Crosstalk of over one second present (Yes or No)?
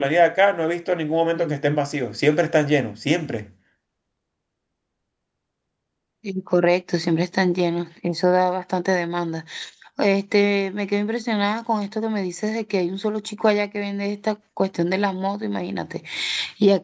No